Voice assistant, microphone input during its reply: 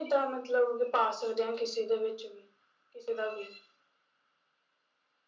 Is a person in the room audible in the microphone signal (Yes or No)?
No